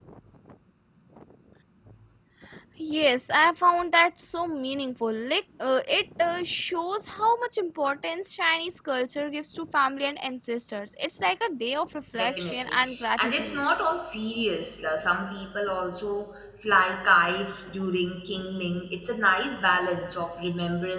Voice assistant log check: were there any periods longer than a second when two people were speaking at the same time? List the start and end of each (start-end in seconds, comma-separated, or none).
12.2-13.6